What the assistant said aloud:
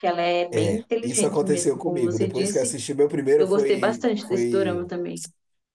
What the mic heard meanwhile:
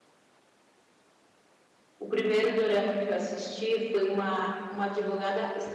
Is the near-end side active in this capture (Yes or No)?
Yes